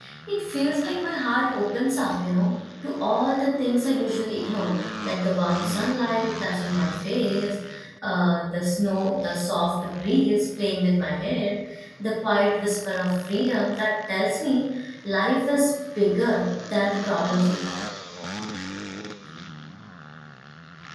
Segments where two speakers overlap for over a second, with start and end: none

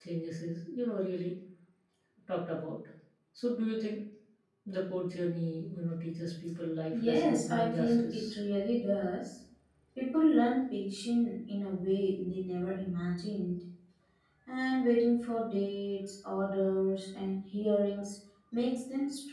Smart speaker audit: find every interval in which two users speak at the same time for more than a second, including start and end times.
6.9-8.4

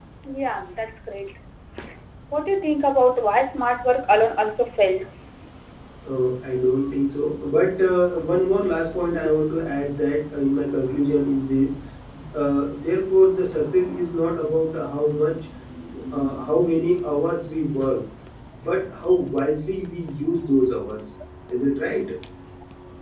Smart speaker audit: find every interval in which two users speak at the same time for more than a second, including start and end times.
none

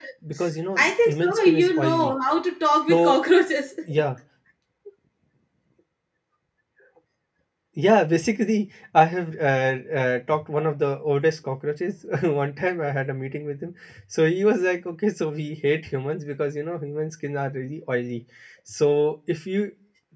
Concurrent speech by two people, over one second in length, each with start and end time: 0.8-2.1

